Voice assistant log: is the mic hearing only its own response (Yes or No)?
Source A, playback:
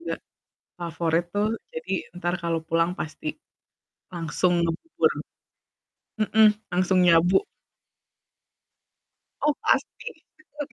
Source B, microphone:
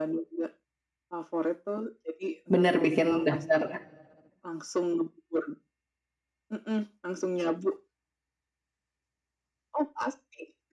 No